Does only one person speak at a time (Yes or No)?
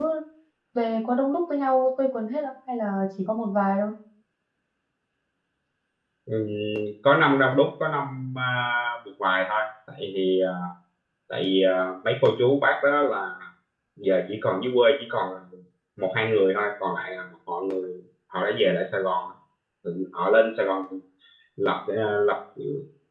Yes